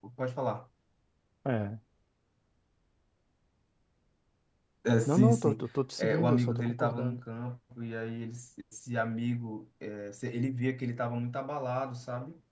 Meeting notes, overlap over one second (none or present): present